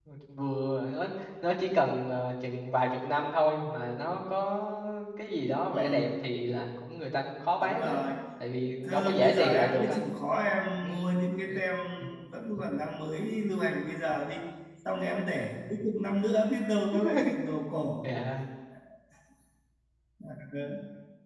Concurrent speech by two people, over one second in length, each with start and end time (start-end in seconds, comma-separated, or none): 8.8-10.1